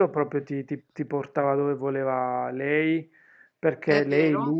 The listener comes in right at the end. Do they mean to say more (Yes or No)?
No